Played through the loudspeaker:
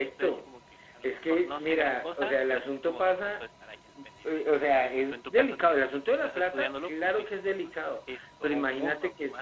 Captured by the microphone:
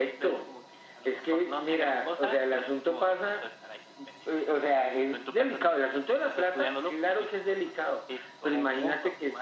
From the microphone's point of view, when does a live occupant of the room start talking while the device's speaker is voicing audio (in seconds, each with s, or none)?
none